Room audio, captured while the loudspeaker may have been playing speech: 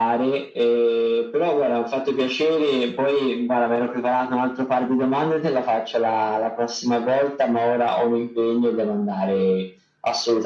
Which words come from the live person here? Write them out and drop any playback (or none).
none